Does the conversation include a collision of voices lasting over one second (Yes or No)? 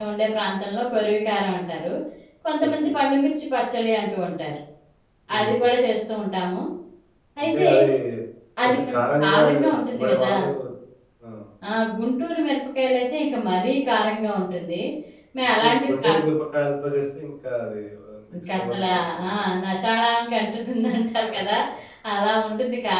Yes